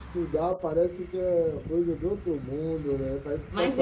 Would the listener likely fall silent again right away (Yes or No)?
No